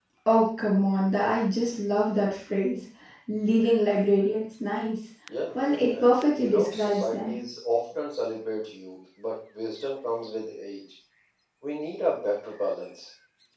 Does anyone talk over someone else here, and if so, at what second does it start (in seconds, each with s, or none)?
6.0 s